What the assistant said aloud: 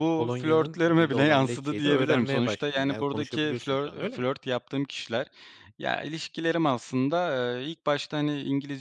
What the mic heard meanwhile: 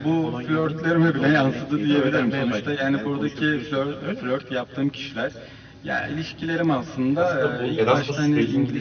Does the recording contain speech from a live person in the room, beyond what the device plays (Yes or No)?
Yes